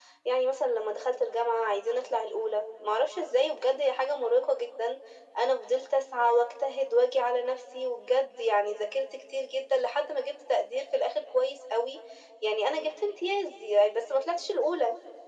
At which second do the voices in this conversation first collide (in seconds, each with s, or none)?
none